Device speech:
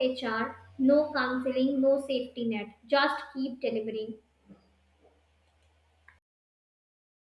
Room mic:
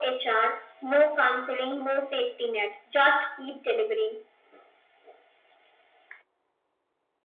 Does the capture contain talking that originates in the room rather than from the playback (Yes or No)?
No